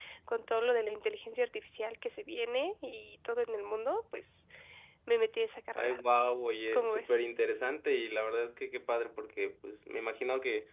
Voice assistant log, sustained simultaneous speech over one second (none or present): none